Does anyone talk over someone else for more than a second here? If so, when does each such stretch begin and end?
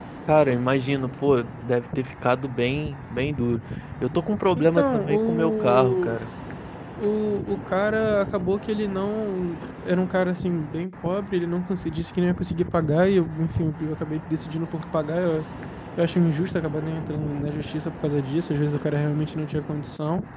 4.6-6.2

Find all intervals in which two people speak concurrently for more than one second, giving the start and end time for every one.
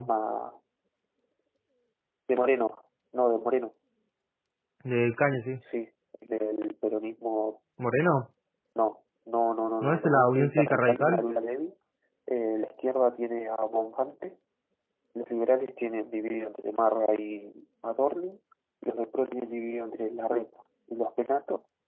9.8-11.2

